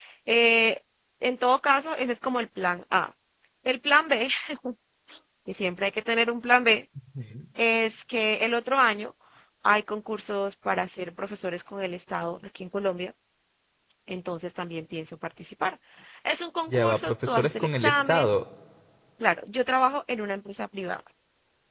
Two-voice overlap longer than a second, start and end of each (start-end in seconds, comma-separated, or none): 16.7-18.3